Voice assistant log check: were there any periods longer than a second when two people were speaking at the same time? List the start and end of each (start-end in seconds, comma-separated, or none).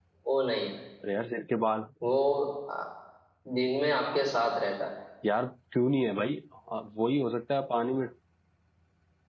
none